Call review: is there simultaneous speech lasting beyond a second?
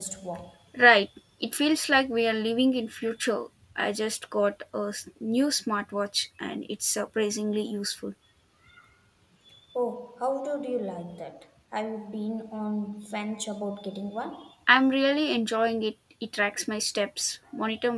No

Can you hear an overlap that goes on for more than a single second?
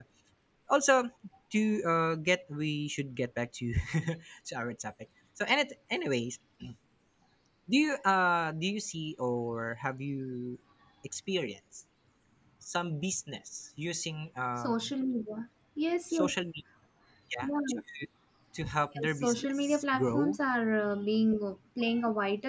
Yes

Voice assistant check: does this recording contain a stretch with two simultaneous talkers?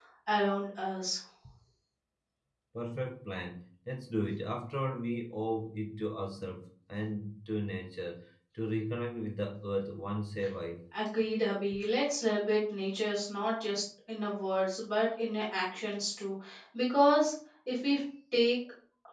No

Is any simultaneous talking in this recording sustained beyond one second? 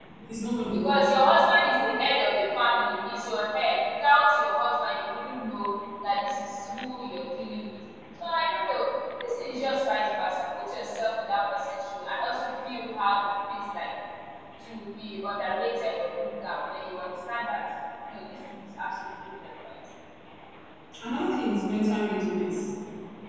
No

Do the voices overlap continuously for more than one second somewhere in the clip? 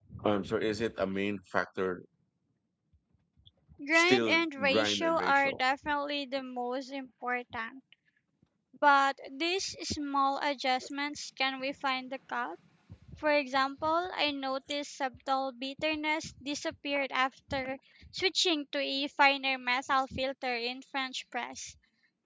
Yes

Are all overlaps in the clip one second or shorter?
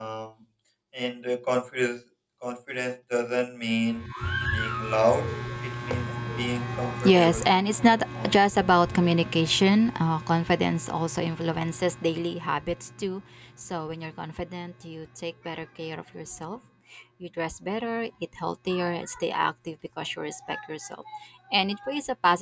No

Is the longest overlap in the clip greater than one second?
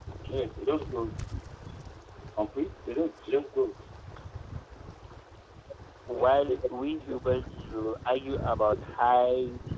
No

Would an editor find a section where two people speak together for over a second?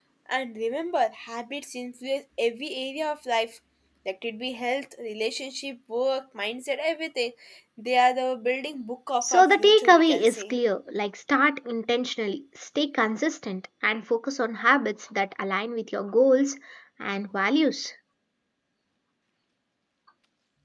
Yes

